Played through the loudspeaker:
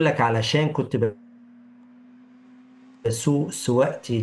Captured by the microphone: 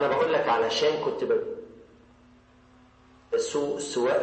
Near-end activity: none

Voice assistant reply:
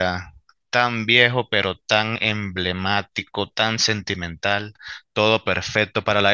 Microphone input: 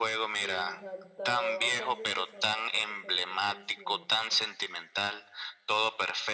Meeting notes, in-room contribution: present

